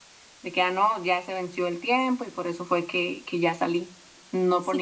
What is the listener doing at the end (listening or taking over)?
taking over